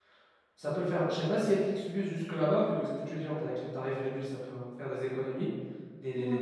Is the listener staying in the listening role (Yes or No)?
Yes